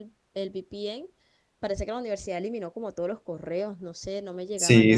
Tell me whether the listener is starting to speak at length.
Yes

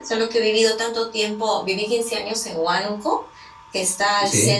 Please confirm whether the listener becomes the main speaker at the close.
No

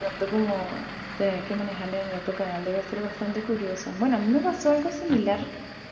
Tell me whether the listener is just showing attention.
Yes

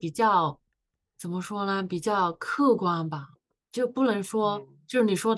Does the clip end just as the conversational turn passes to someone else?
No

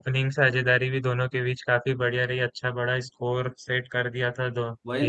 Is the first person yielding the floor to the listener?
Yes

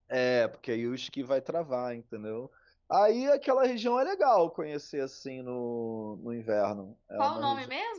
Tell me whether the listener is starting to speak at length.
Yes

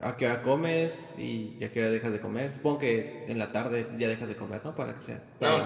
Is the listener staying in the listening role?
No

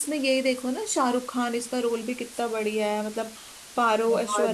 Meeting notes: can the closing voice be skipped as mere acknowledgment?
Yes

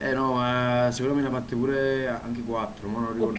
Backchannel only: No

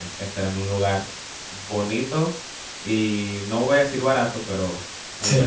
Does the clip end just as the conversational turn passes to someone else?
Yes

